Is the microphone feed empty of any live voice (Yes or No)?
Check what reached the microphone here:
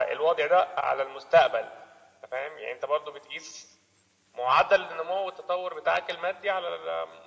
Yes